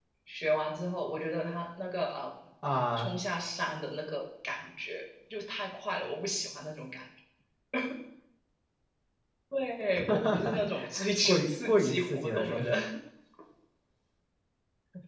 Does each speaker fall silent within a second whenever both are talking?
No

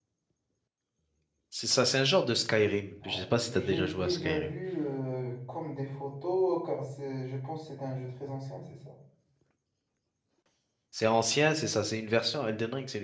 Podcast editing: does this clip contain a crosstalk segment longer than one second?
Yes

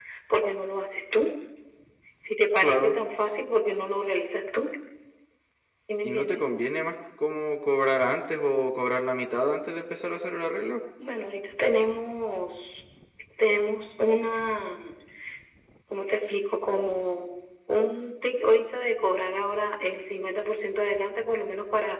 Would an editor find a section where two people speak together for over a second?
No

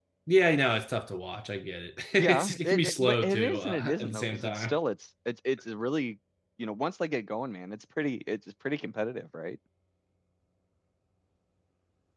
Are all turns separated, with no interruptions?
No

